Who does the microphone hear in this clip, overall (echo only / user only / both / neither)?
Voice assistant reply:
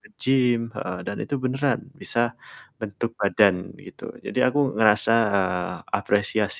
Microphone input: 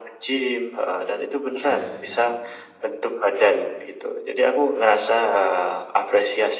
both